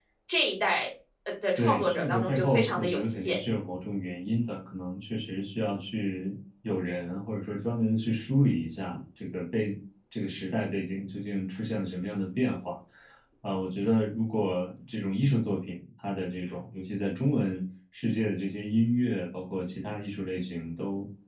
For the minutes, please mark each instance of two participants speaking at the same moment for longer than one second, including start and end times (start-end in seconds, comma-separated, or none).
1.6-3.4